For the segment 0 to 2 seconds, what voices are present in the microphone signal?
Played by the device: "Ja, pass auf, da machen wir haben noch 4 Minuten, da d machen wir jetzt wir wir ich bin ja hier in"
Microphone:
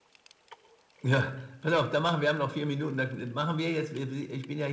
echo only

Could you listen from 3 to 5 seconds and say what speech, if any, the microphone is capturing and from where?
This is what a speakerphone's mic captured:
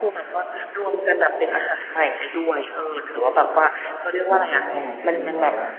both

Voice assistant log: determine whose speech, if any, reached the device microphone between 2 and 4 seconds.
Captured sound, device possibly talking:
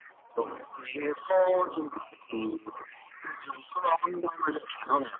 echo only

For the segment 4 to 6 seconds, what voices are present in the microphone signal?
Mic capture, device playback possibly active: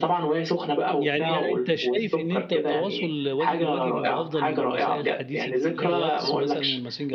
both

